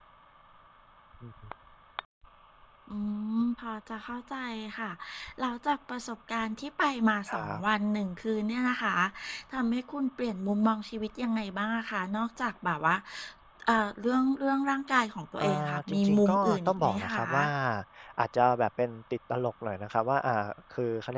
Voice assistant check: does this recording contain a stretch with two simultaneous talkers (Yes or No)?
Yes